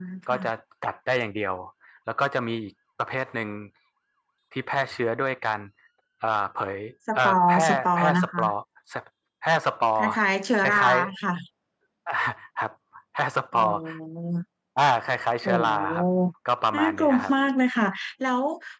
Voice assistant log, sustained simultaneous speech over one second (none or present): present